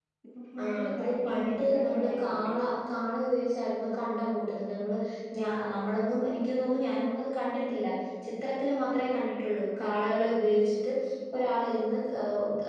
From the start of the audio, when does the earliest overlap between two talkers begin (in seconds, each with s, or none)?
0.6 s